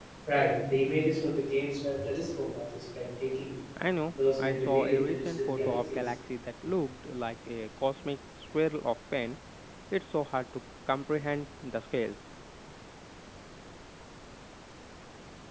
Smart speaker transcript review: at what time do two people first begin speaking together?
4.4 s

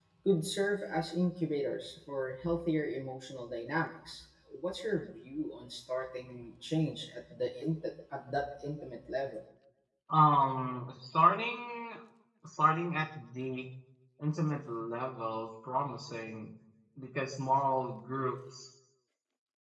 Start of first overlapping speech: none

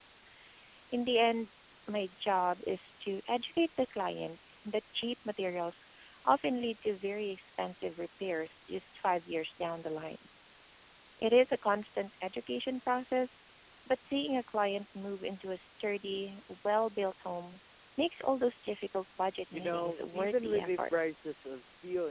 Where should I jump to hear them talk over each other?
19.5 s

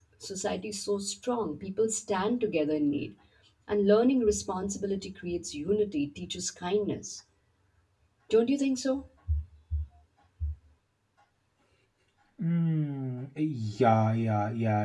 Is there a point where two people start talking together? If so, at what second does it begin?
none

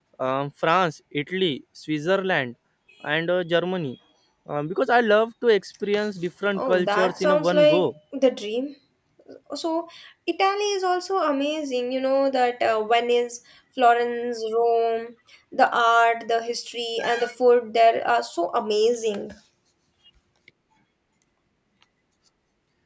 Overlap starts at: 6.6 s

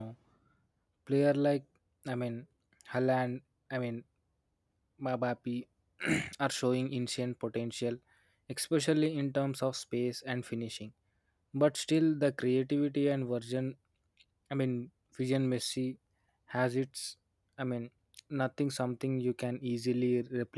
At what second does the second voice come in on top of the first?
none

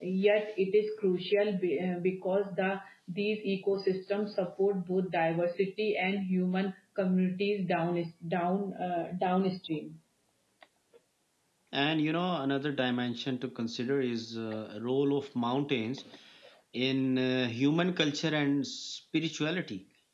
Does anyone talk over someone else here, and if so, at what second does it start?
none

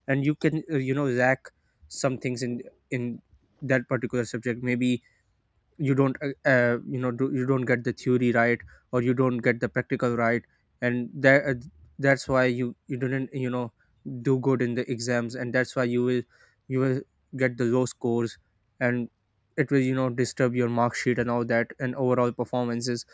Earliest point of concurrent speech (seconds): none

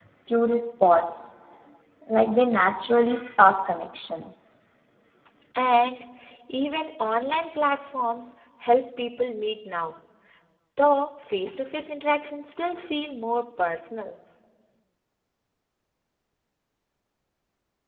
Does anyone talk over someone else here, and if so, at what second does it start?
none

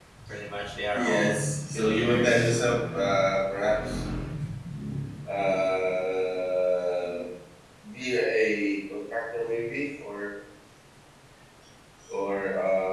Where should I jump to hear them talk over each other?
0.9 s

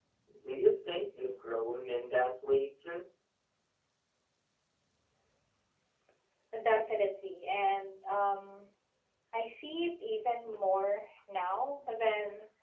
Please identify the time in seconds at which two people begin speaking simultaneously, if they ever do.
none

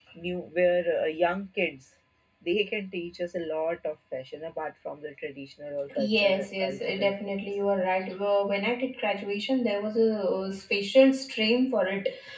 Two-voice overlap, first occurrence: 5.9 s

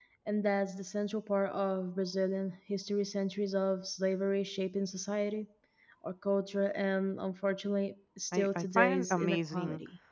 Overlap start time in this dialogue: 8.3 s

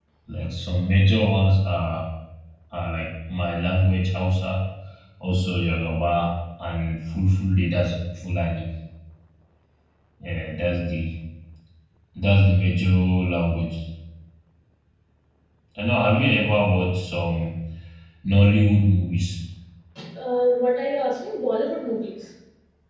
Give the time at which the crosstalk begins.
none

